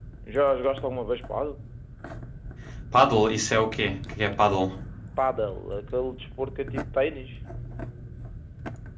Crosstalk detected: No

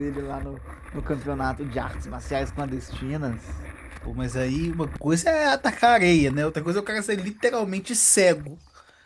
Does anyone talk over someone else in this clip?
No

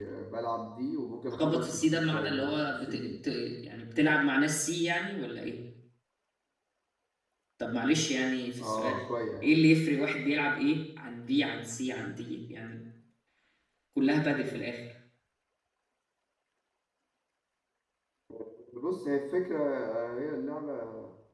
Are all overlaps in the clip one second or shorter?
No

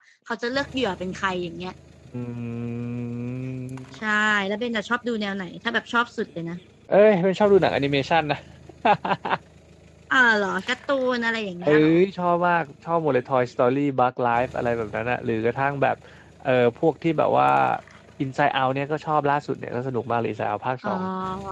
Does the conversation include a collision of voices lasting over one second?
No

